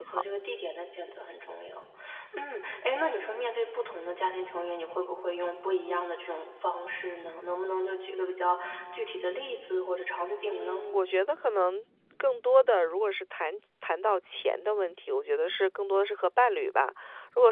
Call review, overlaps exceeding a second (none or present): none